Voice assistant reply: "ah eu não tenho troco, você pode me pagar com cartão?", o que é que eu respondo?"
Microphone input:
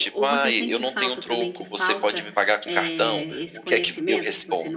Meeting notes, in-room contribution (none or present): present